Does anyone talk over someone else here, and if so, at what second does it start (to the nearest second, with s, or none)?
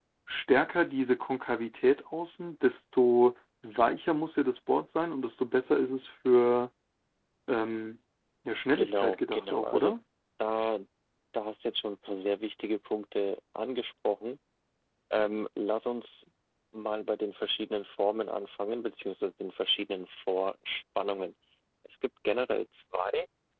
9 s